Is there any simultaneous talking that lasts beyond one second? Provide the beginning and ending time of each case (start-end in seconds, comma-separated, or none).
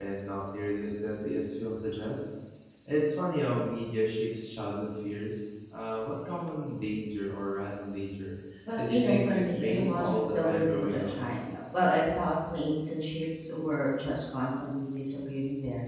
8.8-11.2